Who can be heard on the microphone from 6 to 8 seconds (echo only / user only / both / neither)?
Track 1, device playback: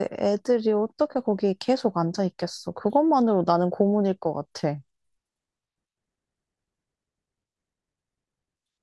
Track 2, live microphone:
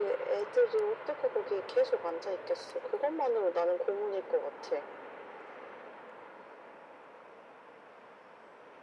neither